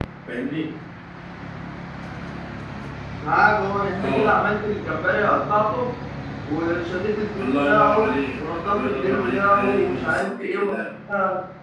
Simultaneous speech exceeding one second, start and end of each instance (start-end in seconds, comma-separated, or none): 7.4-10.8